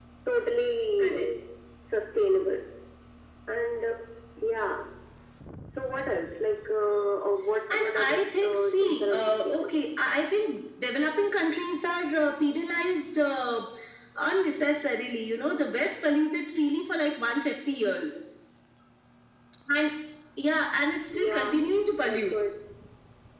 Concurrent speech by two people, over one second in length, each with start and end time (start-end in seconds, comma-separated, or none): 7.7-9.7